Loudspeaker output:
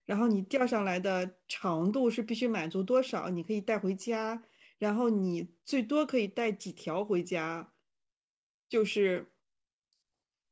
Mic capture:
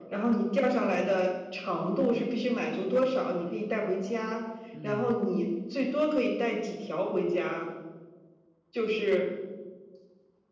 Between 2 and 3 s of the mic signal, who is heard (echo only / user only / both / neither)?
echo only